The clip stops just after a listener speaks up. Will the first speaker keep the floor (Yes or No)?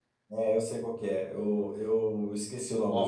No